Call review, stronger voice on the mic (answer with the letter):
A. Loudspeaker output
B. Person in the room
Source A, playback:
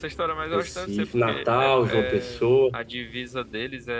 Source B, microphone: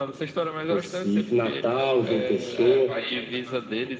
A